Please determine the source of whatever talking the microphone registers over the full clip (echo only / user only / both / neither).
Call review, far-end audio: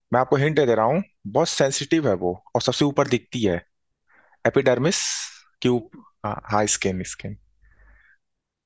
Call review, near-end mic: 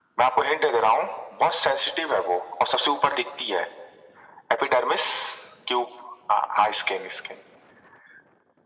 echo only